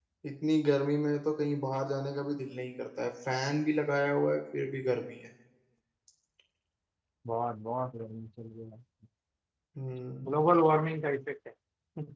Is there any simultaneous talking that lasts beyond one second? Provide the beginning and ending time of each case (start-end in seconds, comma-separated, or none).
none